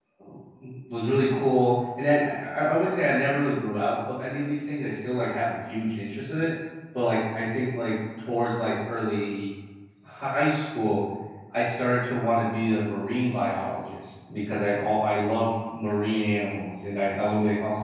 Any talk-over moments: No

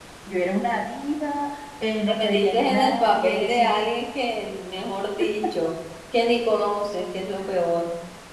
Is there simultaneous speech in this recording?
Yes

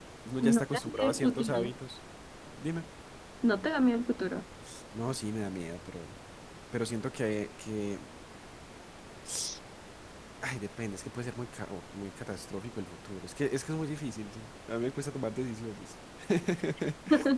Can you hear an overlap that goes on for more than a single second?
Yes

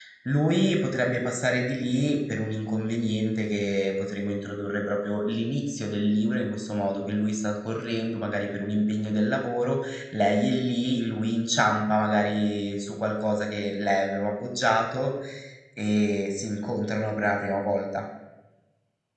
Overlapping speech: No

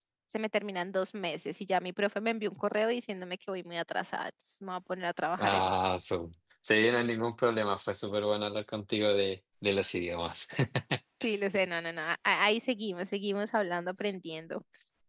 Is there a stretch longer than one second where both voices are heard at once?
No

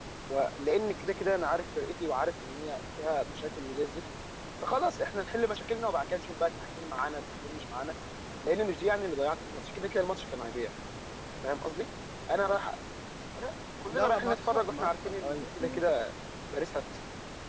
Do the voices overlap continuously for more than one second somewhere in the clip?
Yes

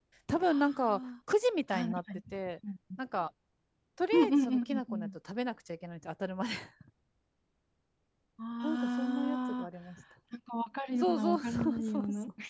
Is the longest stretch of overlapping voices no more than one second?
No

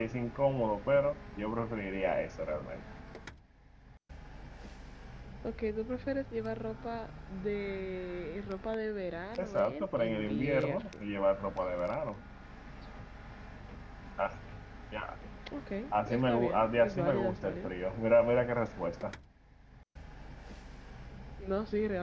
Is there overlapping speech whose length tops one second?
Yes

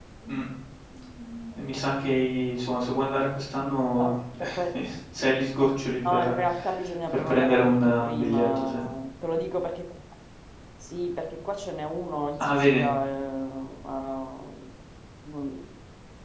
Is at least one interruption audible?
Yes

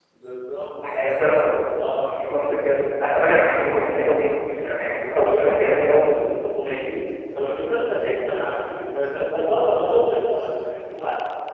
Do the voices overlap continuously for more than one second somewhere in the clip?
Yes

